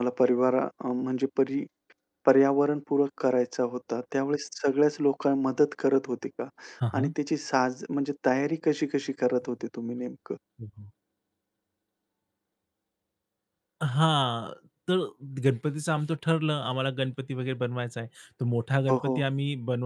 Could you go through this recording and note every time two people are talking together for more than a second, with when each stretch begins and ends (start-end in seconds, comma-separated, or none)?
none